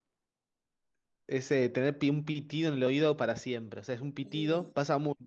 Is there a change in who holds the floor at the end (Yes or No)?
No